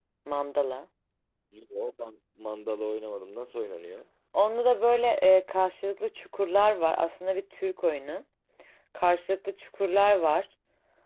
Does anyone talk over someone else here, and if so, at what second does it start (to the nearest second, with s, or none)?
none